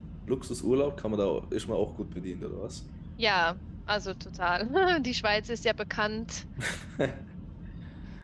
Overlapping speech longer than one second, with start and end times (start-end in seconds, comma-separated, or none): none